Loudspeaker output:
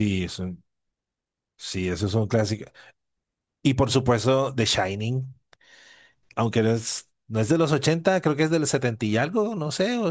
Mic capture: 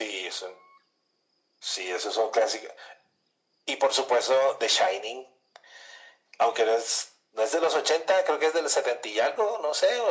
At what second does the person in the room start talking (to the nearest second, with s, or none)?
none